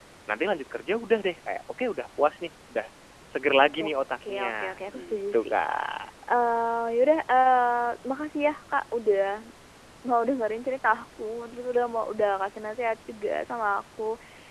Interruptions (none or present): present